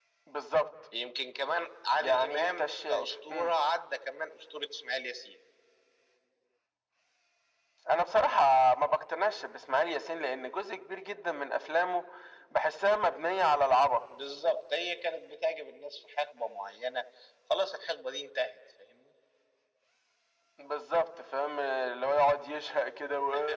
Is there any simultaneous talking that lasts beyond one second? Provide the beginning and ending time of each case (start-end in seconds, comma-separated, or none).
1.9-3.5